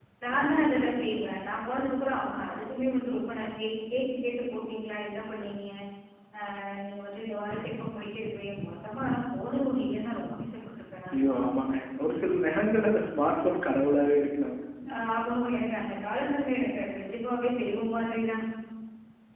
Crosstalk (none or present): none